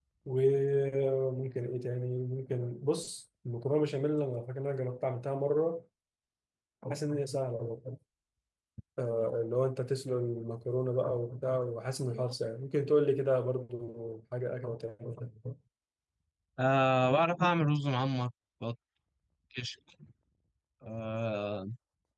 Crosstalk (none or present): none